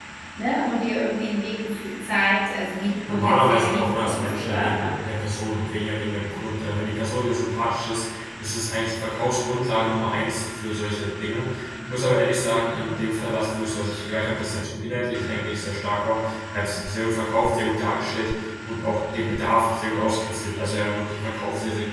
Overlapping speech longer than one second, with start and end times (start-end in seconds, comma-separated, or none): 3.1-4.7